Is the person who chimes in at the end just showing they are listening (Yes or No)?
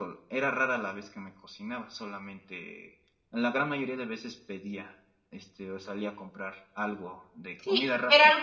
No